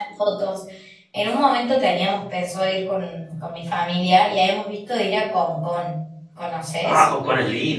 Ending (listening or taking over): taking over